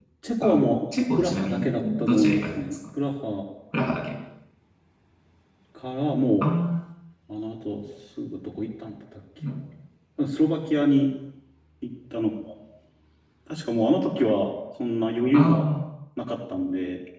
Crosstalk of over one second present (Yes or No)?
Yes